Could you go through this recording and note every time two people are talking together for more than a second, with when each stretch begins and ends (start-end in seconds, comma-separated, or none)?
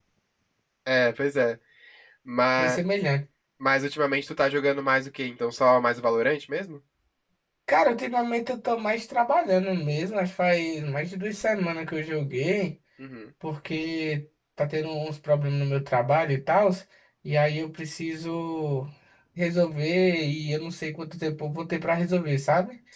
none